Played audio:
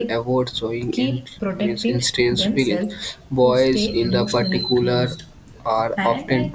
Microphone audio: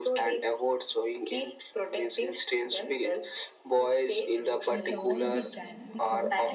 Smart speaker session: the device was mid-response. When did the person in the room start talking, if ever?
4.7 s

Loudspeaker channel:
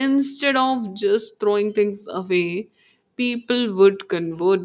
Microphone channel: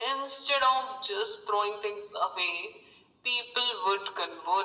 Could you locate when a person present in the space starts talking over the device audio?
none

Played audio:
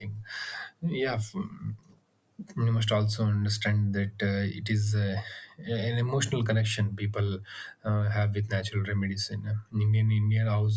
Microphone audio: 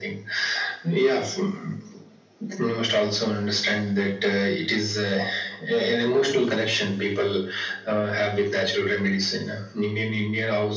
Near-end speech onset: none

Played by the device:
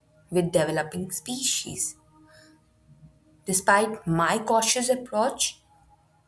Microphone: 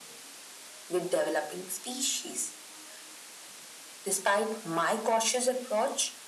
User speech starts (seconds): none

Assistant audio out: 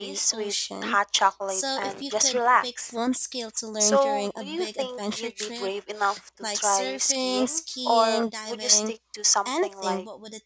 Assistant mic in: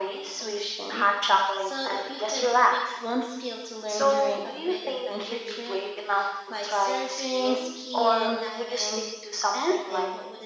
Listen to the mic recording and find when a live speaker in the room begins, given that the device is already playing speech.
none

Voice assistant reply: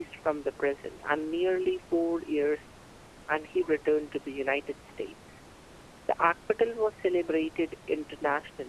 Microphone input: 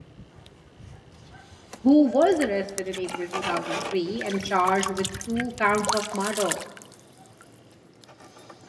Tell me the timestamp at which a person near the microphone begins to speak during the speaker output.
1.8 s

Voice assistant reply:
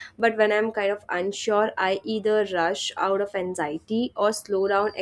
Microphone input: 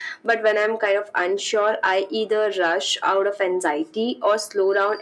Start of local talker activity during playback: none

